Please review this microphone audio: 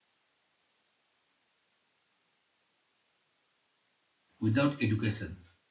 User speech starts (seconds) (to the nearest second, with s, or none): 4 s